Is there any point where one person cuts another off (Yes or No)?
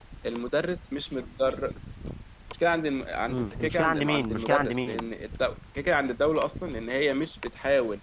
Yes